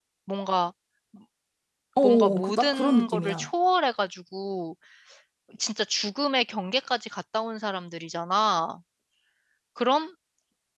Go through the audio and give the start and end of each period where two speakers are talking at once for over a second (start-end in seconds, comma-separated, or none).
2.0-3.5